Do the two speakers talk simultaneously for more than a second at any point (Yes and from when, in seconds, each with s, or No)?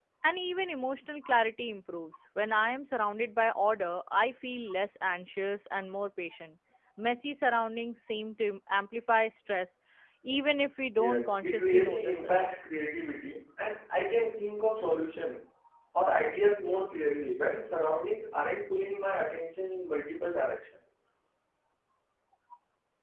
Yes, from 10.9 s